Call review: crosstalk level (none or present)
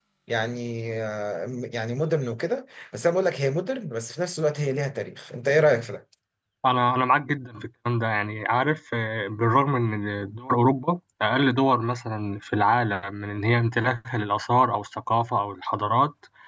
none